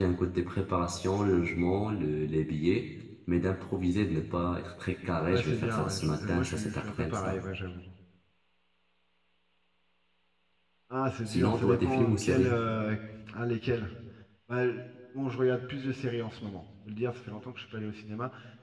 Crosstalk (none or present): present